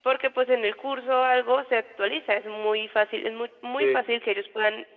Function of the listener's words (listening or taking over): listening